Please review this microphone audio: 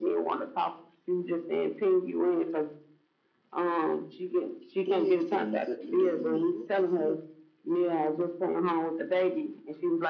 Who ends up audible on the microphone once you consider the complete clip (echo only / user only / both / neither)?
both